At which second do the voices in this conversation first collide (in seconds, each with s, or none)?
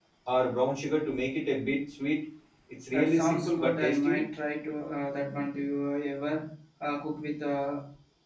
2.9 s